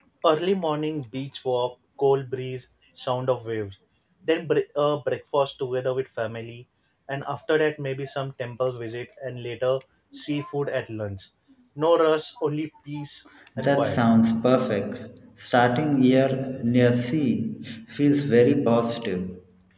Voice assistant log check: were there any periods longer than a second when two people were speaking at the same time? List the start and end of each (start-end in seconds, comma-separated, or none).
none